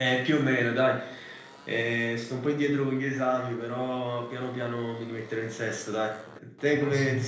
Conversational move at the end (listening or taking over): listening